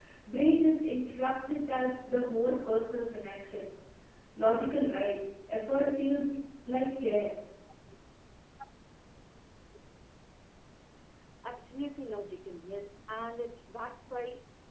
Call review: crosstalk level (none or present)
none